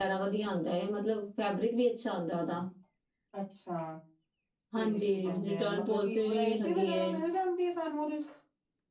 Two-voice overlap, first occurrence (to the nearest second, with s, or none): 5 s